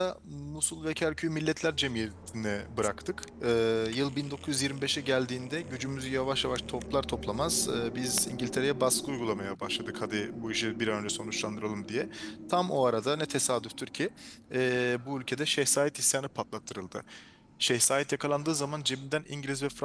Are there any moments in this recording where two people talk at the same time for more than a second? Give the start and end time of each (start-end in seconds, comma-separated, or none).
none